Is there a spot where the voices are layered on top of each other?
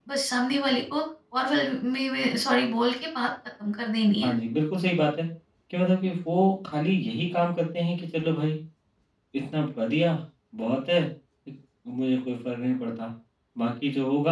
No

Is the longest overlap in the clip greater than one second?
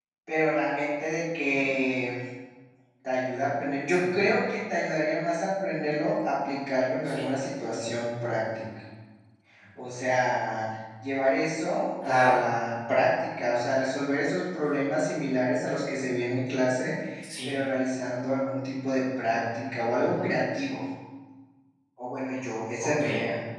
No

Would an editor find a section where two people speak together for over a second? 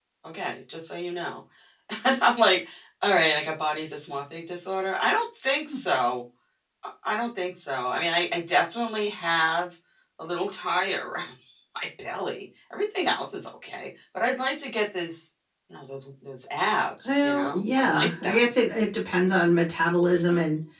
Yes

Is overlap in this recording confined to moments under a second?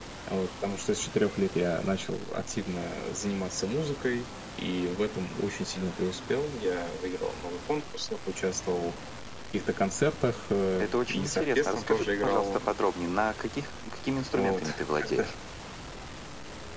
No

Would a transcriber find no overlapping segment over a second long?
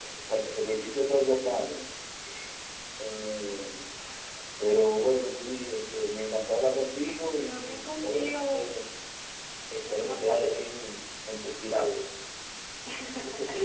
No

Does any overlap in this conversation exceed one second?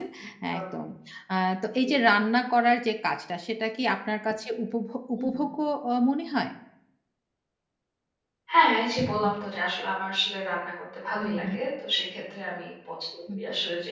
No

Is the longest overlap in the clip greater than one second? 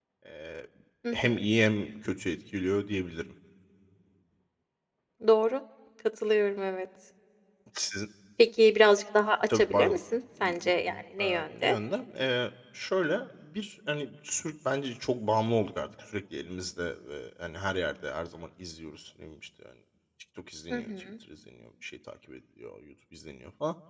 Yes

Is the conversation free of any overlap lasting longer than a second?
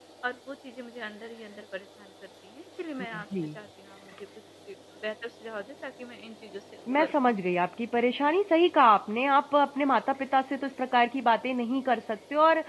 Yes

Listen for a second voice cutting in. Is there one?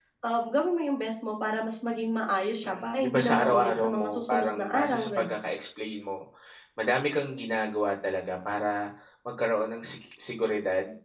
Yes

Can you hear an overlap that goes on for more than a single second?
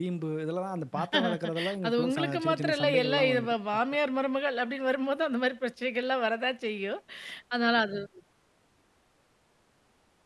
Yes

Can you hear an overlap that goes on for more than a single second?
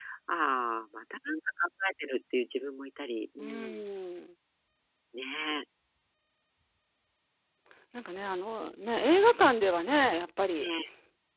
No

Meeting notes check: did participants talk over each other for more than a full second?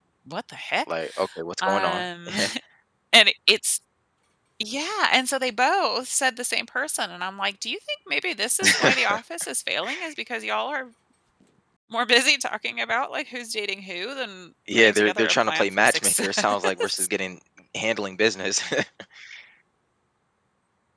Yes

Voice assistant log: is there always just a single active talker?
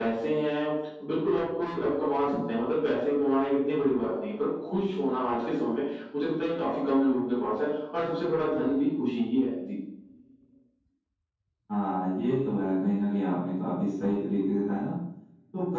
Yes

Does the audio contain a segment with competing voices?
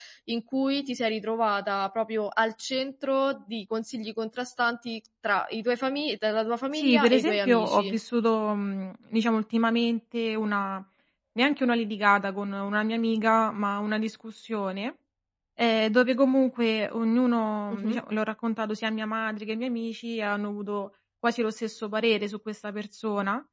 Yes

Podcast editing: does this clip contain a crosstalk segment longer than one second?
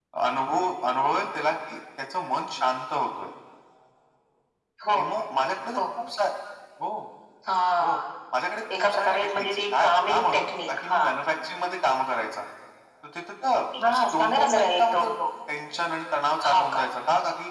Yes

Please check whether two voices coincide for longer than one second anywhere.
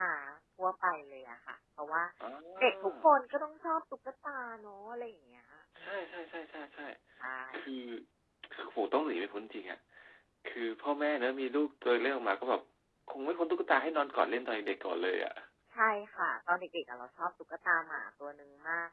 No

